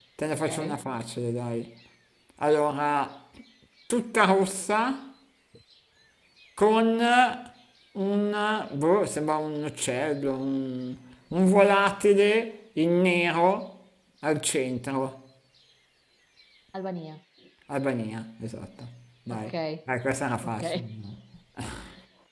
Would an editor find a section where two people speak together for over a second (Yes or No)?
No